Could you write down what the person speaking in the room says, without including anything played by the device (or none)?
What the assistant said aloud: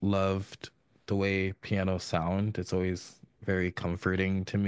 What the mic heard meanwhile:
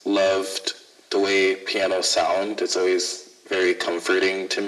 none